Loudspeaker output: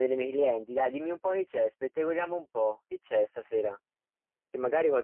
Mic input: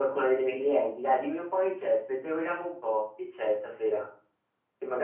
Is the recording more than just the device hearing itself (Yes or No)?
No